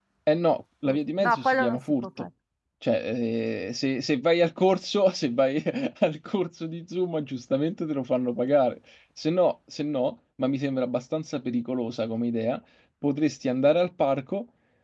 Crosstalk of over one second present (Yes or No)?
Yes